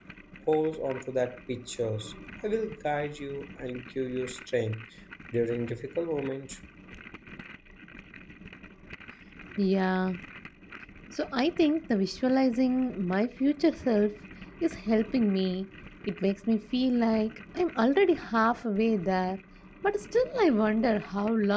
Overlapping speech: No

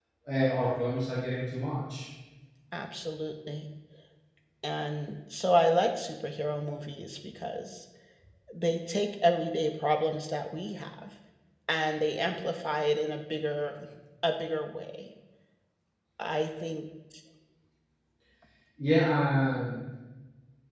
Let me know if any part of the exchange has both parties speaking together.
No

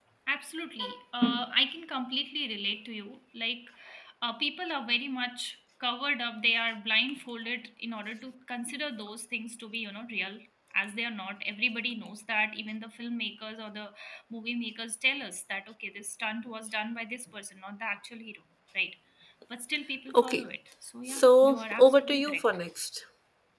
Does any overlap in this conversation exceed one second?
Yes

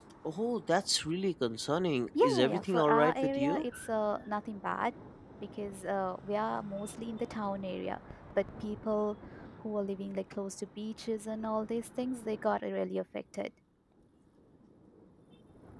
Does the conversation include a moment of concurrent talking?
Yes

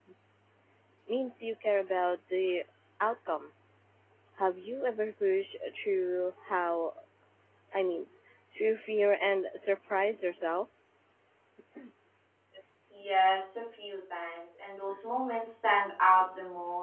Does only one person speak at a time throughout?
Yes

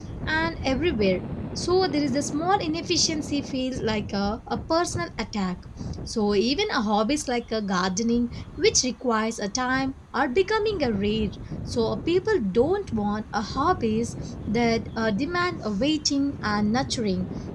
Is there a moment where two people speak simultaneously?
No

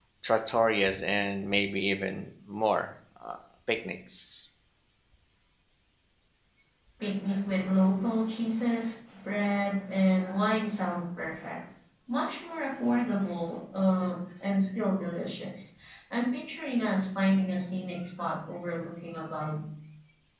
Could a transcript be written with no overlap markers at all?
Yes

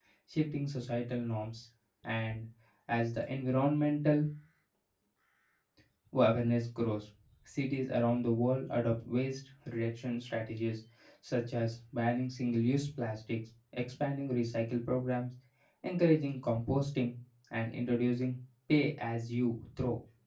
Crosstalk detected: No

